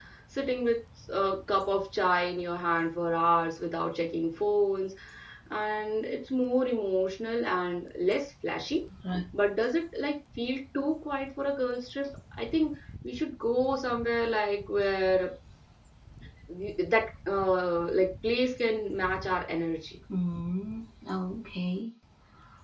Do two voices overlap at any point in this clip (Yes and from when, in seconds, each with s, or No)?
No